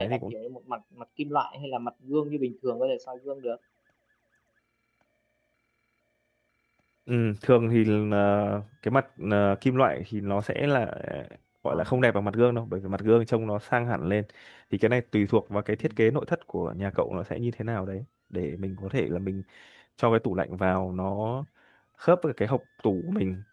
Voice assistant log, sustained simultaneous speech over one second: none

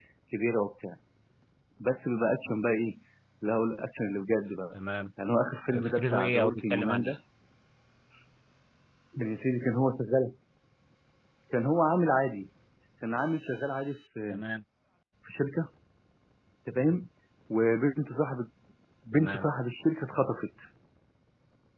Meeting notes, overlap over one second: present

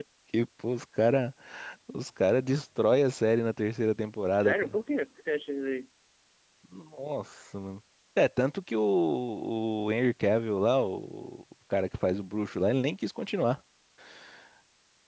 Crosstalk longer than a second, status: none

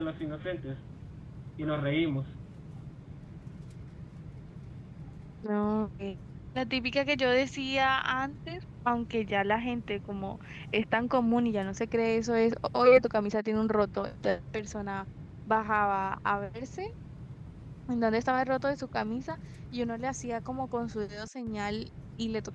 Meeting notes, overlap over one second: none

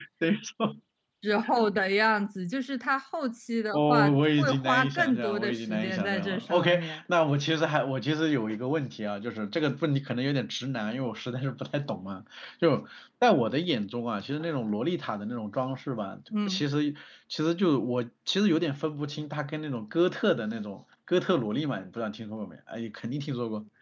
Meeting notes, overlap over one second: present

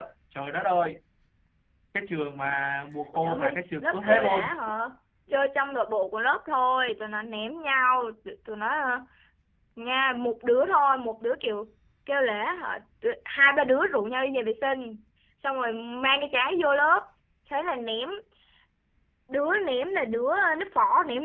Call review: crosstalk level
present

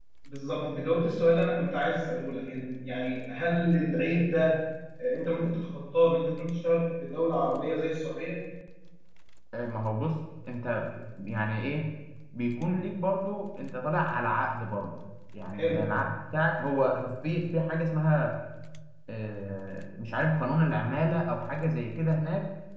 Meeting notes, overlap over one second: none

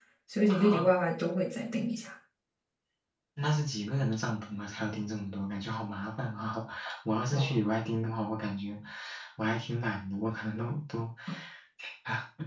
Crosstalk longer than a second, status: none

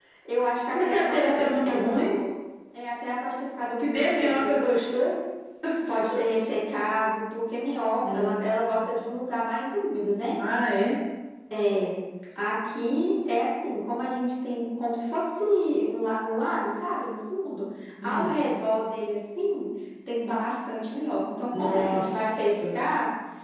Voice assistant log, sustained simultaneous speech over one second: present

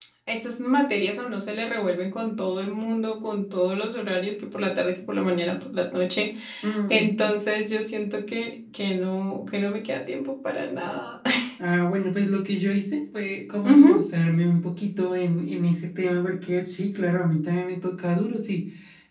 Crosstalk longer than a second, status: none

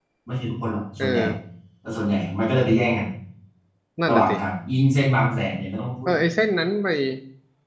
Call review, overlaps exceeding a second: none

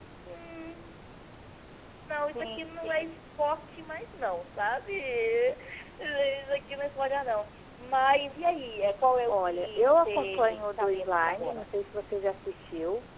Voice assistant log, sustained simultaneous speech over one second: present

